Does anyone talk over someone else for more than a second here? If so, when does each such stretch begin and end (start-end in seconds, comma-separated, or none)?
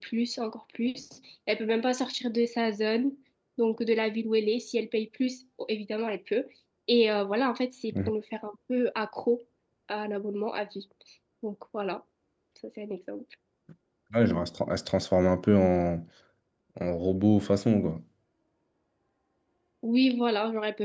none